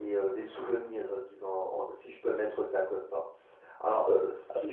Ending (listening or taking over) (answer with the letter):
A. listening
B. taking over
A